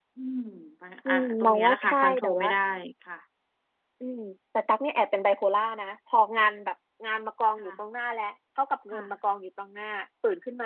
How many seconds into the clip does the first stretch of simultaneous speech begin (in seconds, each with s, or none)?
1.1 s